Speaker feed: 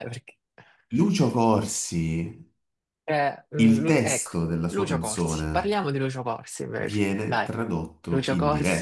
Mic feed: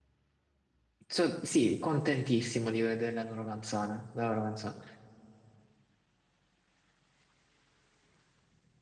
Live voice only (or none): so- sì, contentissimo di vedere la loro canzone, la loro canzone.